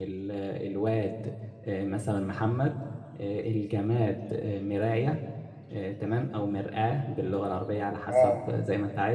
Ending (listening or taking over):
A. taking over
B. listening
B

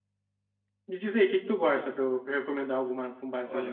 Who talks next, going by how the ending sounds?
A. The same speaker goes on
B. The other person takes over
B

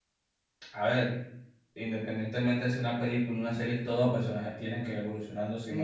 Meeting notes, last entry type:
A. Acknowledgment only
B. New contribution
B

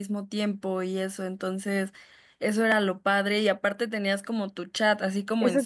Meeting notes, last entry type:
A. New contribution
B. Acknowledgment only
A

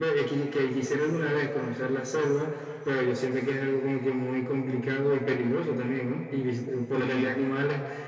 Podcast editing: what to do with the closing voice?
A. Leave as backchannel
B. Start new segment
A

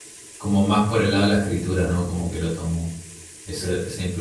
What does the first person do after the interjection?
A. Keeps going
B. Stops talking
A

